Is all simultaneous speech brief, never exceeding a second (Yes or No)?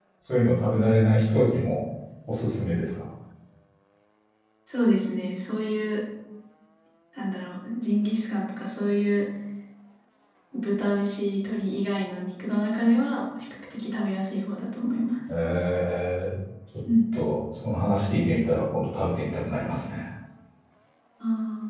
Yes